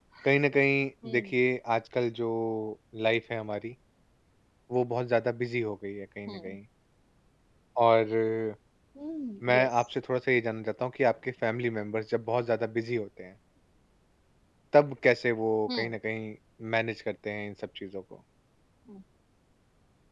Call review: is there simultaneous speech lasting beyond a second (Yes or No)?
No